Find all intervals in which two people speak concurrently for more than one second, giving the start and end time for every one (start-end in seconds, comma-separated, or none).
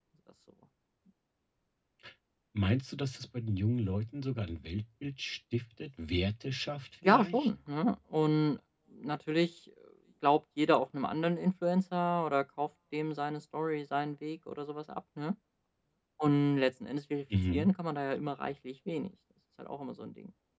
none